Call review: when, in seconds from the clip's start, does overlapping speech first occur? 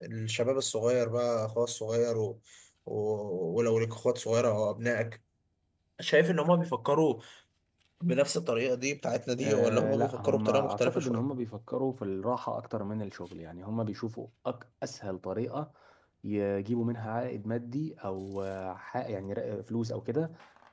9.4 s

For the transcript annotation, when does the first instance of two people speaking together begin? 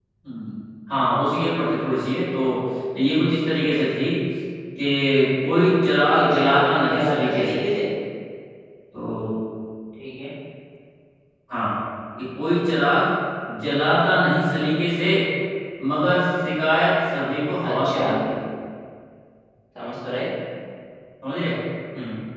6.0 s

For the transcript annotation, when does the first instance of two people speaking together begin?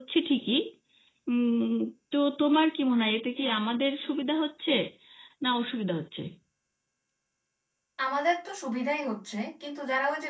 none

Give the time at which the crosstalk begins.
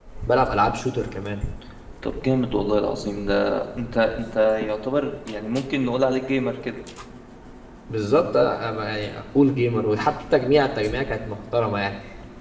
none

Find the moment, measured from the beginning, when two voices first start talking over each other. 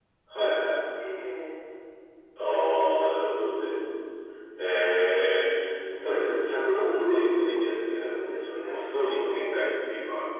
7.9 s

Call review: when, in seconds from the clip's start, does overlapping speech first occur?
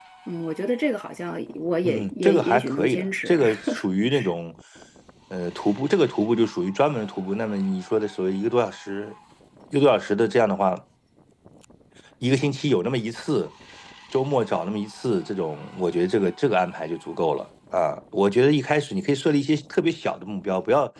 1.8 s

